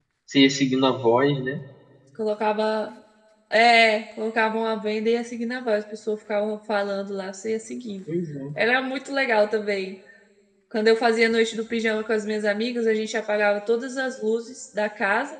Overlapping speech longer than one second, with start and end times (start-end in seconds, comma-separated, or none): none